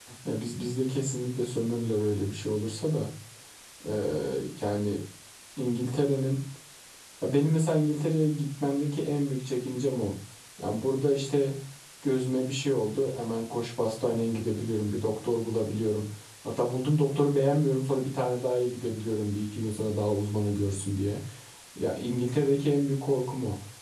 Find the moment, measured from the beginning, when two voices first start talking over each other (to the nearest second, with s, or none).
none